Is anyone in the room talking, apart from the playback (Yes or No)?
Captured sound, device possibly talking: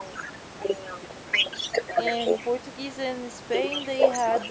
Yes